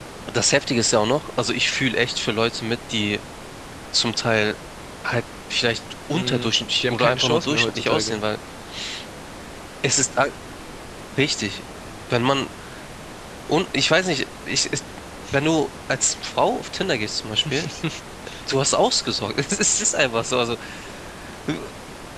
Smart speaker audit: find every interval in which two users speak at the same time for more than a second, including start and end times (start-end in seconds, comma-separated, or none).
6.1-8.2